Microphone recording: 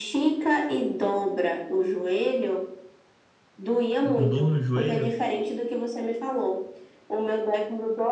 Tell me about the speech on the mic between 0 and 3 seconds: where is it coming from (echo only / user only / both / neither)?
echo only